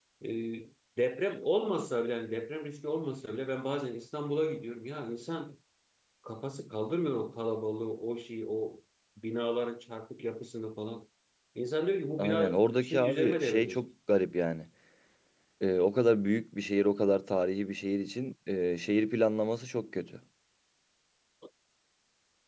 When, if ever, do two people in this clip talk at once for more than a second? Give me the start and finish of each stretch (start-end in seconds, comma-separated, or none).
12.2-13.8